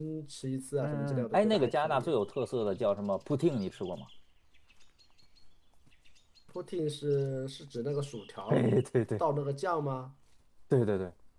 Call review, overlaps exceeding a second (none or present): present